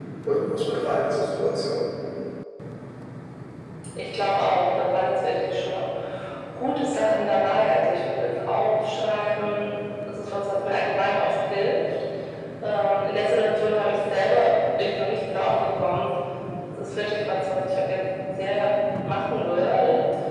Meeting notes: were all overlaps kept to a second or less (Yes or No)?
Yes